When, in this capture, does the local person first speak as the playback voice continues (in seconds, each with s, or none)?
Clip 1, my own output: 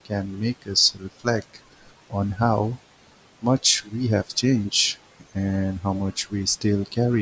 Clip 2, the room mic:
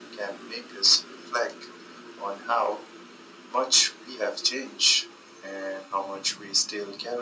none